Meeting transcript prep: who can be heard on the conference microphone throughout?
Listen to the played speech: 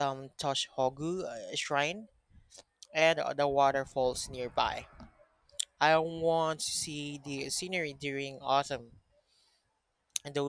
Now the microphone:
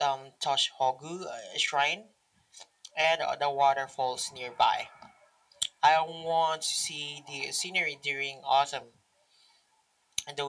echo only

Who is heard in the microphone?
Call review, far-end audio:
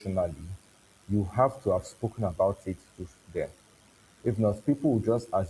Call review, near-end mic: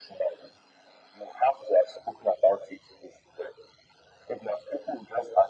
echo only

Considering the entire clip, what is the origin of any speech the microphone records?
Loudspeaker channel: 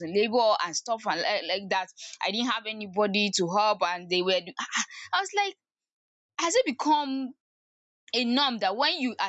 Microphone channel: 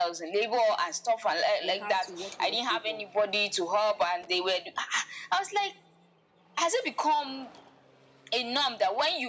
both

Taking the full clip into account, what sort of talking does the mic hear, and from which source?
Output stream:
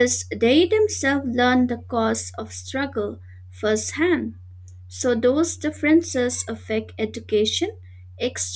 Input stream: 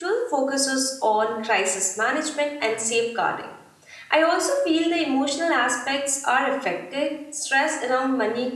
user only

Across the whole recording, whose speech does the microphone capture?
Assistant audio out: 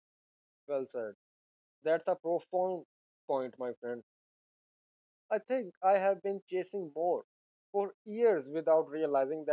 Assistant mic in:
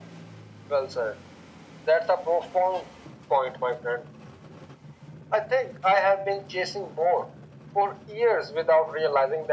echo only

